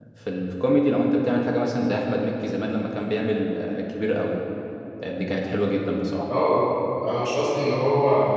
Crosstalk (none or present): none